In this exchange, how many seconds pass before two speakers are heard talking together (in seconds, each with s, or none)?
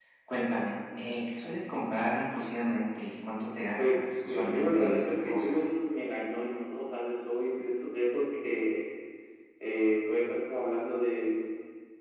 3.8 s